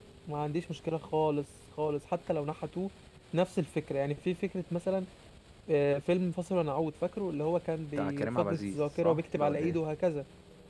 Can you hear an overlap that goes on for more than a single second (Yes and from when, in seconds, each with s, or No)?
Yes, from 8.0 s